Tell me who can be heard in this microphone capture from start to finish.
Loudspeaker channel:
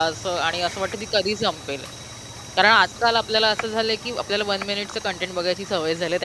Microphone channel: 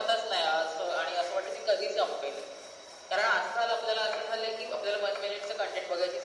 echo only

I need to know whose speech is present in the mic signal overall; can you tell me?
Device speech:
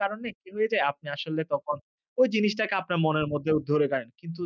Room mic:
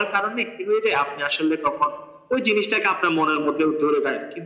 echo only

